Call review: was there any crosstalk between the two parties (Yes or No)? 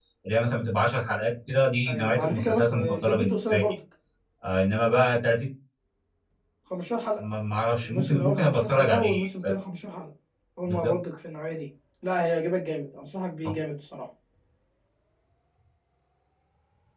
Yes